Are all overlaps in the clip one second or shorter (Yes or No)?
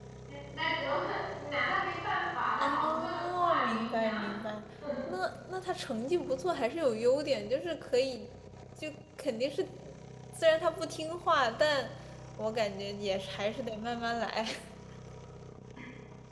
No